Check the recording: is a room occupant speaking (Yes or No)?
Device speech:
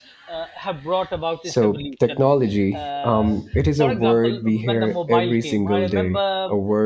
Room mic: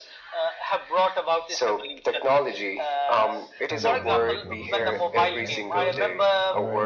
Yes